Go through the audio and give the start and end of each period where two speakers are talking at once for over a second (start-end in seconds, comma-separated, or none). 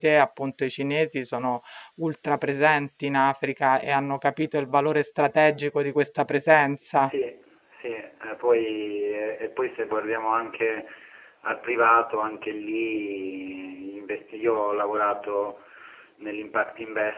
none